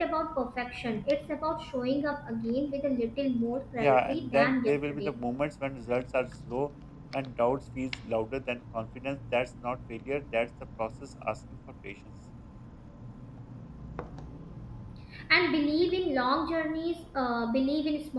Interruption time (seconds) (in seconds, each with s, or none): 3.8 s